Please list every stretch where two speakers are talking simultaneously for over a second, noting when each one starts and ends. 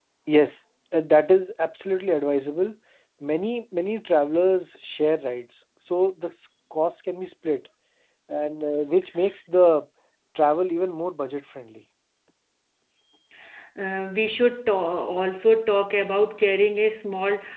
none

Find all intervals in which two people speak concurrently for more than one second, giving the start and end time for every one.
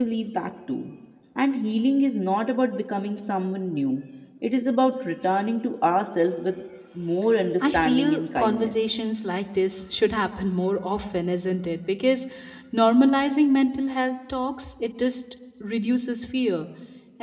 7.6-8.9

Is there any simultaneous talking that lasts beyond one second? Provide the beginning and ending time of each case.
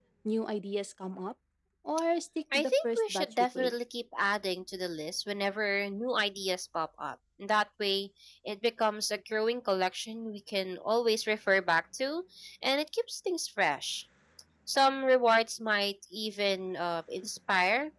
2.5-3.7

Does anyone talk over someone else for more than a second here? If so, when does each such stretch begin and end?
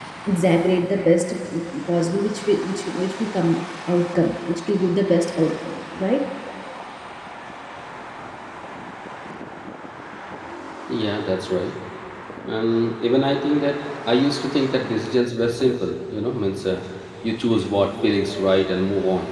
none

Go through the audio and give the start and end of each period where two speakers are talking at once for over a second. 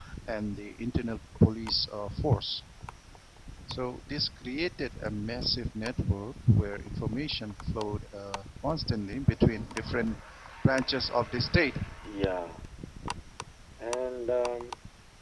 none

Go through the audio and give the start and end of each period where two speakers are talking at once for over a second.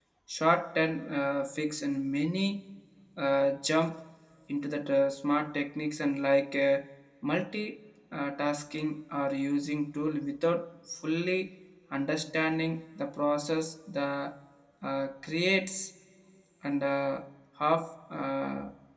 none

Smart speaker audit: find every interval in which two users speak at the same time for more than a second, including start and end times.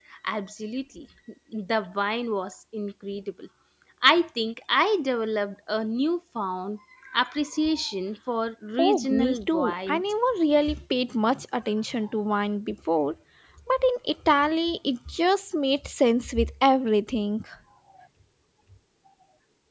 8.8-10.0

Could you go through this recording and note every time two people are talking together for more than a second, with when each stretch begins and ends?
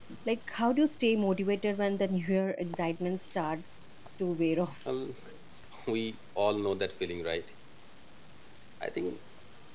none

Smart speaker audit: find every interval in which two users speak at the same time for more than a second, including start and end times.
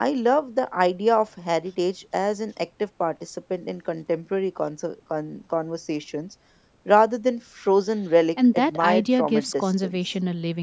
8.5-10.0

